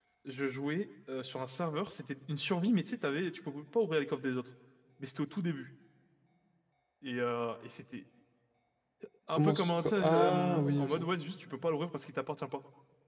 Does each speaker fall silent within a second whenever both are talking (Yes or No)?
No